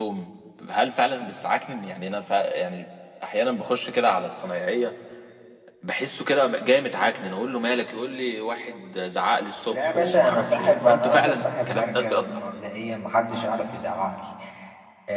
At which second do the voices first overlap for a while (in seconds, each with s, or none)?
9.7 s